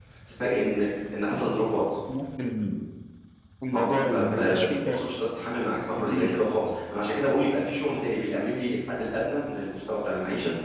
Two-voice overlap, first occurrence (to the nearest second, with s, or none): 4 s